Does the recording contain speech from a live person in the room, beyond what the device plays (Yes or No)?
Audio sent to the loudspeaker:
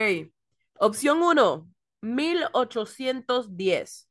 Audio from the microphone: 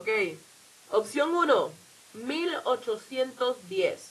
No